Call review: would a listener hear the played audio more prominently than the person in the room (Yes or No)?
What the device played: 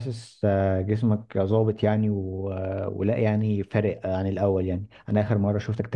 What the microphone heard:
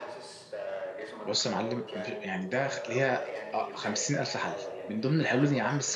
No